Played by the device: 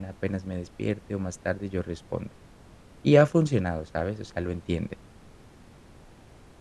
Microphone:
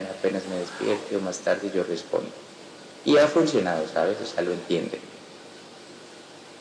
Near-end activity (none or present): none